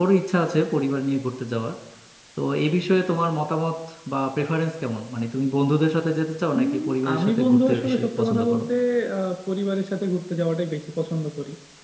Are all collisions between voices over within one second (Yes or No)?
No